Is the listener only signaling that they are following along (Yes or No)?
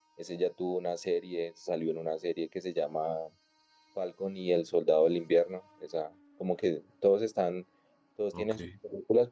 Yes